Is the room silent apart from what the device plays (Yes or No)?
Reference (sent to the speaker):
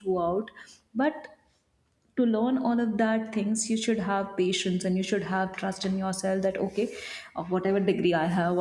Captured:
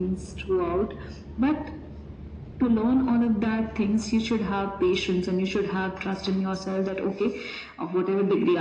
Yes